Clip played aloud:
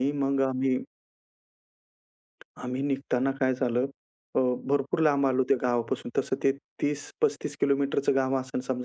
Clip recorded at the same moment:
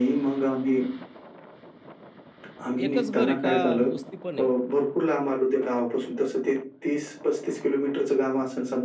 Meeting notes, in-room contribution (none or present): present